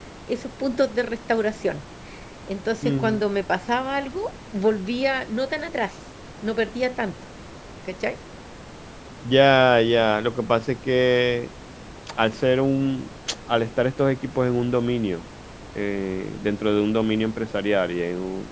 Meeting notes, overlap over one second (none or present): none